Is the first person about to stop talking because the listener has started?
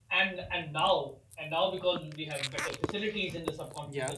No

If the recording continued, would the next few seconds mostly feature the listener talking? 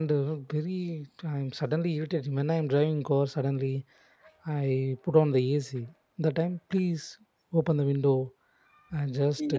Yes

